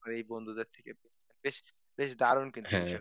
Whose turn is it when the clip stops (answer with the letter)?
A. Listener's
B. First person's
B